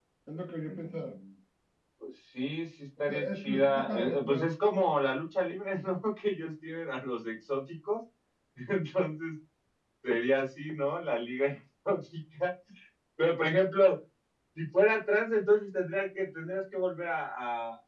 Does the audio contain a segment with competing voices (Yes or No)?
Yes